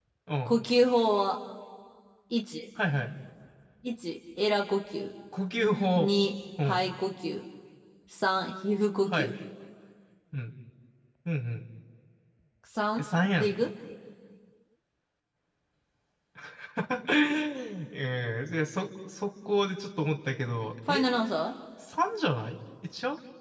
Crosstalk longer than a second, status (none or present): none